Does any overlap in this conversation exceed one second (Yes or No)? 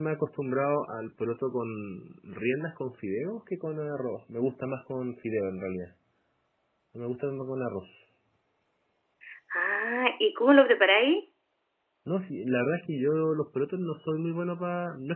No